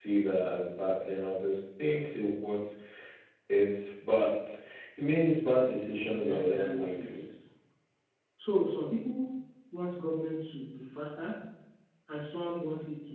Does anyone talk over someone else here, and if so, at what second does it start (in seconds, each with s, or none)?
6.0 s